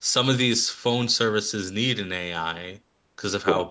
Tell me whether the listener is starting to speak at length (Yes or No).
No